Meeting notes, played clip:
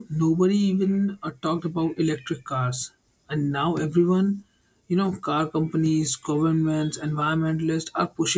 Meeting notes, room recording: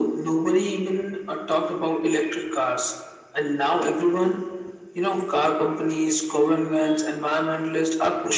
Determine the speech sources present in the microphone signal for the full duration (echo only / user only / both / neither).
echo only